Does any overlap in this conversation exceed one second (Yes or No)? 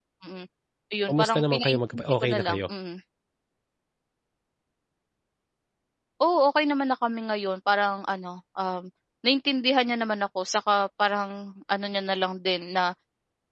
Yes